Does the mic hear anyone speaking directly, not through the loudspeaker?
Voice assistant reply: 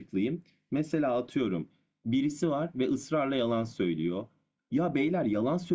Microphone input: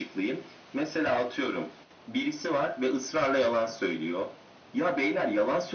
No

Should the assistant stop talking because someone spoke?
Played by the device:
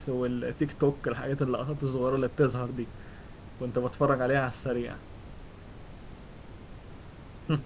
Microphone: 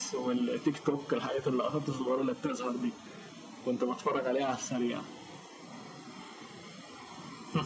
No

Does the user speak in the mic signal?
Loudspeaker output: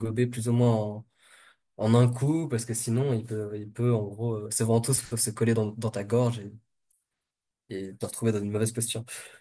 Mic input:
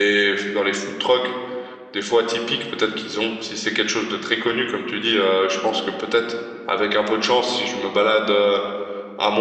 Yes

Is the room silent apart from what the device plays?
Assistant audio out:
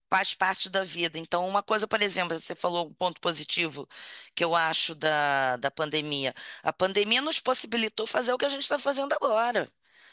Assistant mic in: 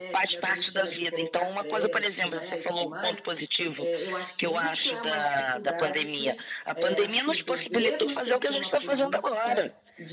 No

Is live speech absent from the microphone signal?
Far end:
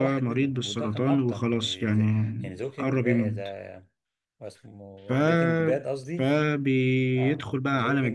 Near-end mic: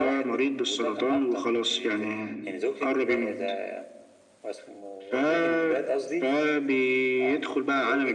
Yes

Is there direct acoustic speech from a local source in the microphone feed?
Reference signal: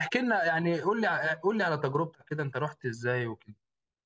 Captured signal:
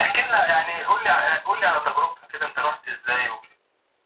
No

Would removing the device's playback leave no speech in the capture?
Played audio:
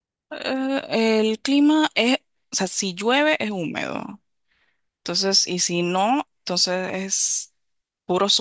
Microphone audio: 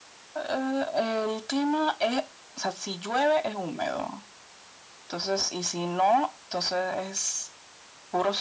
Yes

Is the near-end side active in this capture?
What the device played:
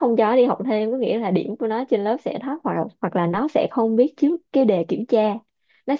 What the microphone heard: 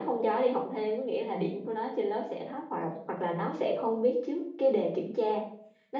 No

